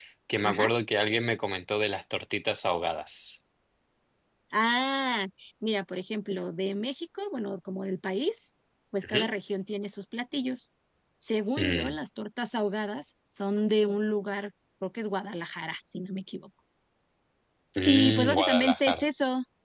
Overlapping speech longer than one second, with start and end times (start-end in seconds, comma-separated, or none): 17.8-19.0